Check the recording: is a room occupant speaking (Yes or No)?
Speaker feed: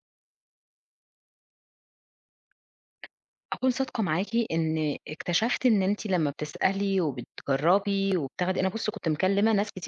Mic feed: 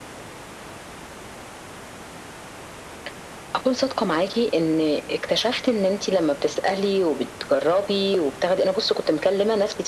No